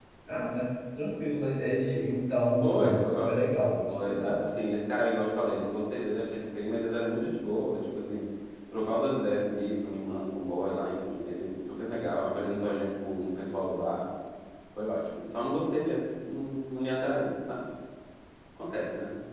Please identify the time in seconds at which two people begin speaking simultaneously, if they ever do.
2.6 s

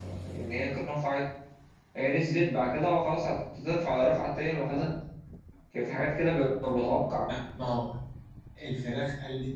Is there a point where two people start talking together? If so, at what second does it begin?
none

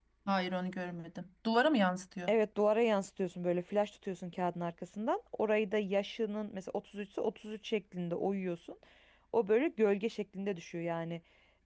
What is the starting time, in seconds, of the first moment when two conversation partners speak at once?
none

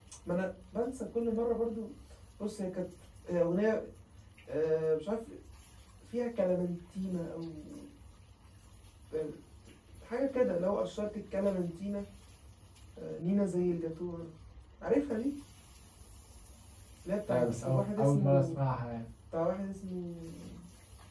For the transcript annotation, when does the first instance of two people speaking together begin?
17.3 s

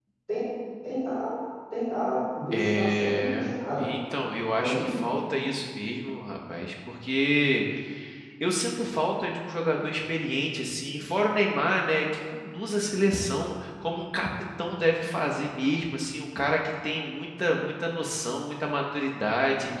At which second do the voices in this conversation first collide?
2.5 s

